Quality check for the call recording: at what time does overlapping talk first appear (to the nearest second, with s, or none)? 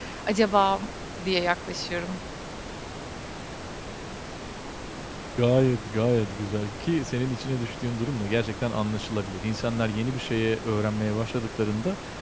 none